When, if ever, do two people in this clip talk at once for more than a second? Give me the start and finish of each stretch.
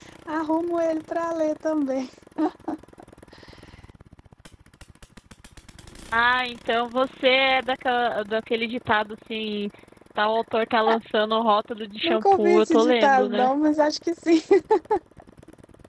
12.0-13.5

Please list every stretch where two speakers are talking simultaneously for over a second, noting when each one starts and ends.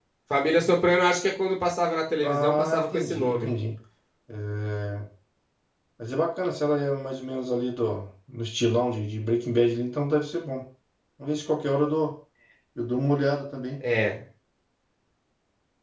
2.2-3.5

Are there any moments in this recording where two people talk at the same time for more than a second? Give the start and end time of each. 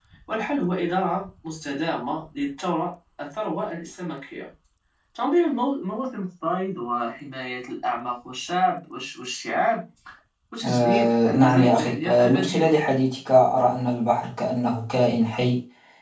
10.6-12.7

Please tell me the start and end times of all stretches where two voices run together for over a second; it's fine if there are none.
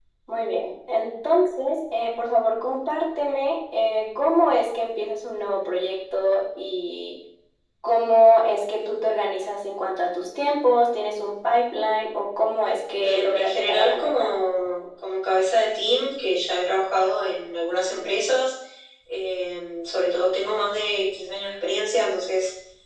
13.0-14.3

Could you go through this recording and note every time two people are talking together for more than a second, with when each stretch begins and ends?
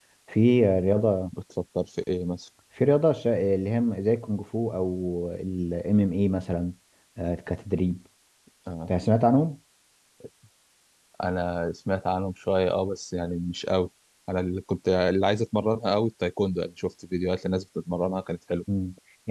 none

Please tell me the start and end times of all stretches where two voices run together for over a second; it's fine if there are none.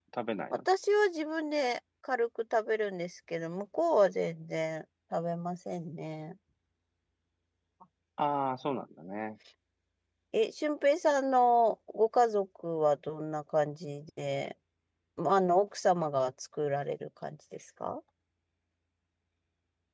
none

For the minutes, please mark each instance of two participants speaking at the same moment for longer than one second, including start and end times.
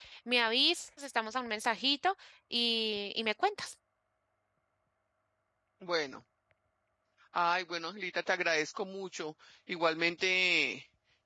none

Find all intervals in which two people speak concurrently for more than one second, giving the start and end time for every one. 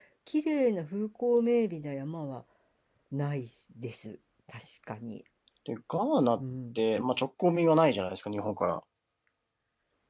none

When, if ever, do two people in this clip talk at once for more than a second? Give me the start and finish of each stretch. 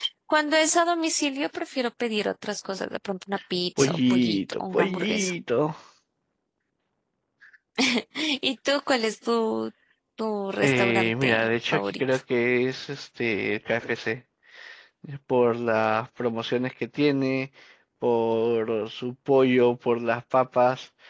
3.8-5.3, 10.6-11.9

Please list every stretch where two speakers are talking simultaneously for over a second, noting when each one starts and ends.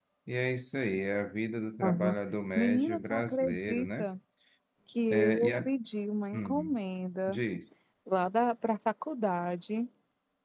2.5-4.1

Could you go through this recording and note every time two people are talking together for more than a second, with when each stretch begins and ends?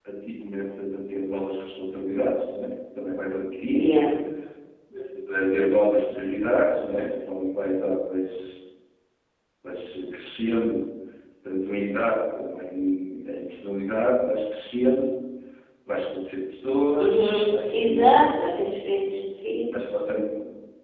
17.0-18.2

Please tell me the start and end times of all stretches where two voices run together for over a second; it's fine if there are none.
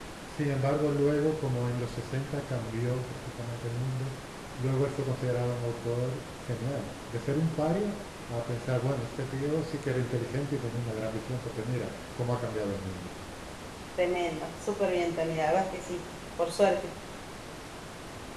none

